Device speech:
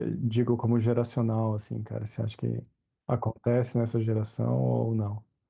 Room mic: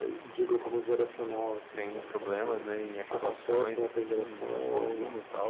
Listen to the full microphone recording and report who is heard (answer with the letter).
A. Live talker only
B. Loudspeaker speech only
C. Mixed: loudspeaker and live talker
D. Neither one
C